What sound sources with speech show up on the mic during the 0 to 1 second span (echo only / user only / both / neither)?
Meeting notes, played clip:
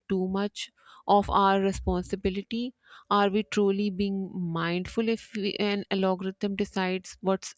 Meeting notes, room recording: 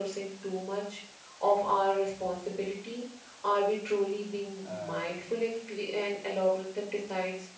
echo only